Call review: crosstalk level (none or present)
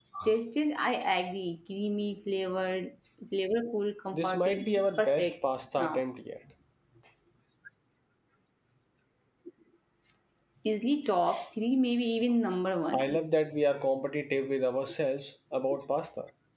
present